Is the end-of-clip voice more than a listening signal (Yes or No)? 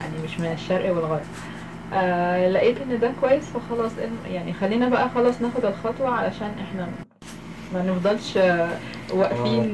No